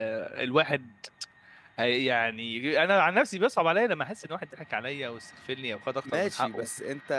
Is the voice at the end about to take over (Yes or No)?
Yes